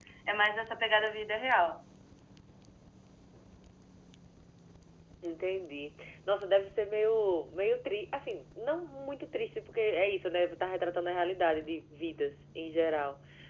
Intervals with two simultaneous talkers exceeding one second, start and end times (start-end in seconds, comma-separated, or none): none